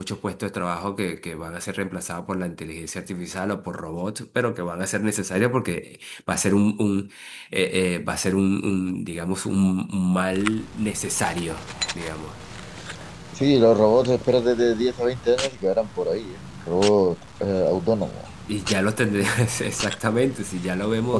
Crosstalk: none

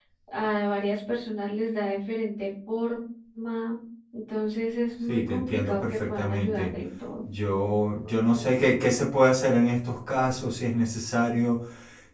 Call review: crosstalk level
present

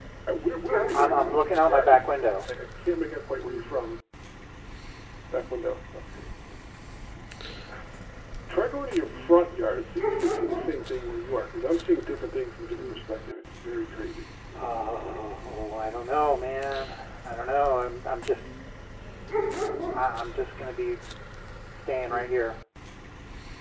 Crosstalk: present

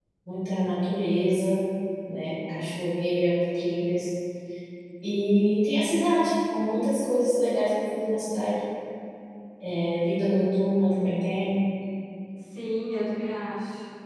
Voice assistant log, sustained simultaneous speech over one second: none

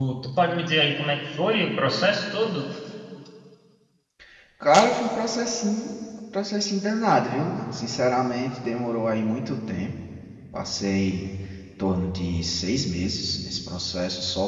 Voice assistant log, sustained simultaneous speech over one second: none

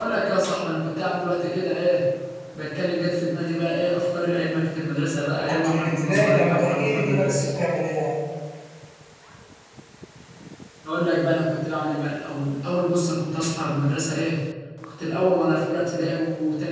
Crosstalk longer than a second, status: present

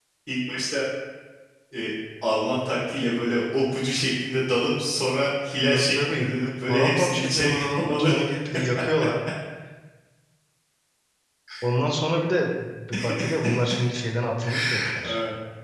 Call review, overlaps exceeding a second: present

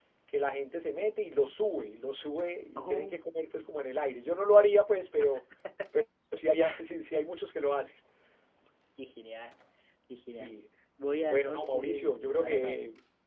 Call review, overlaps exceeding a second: present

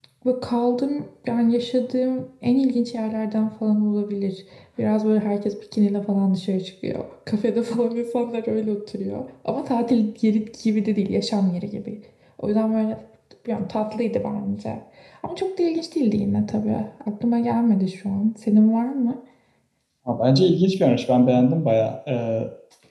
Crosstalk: none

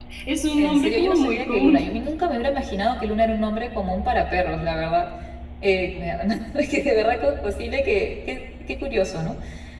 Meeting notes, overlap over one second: present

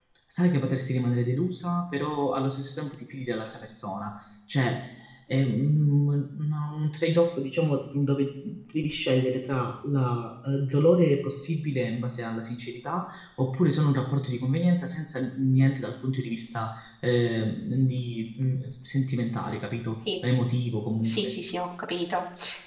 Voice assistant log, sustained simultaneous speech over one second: none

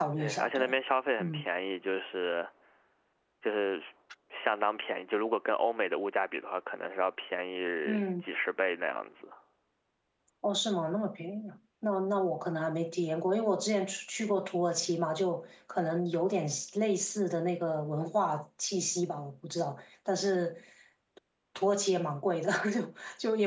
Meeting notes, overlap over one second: none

